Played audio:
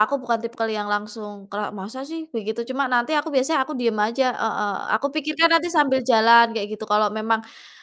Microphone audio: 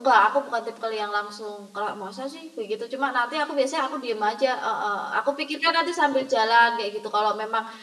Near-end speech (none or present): none